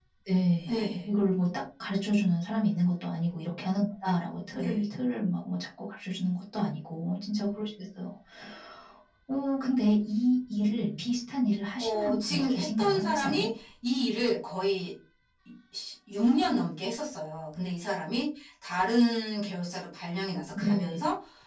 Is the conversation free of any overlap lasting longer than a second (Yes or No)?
No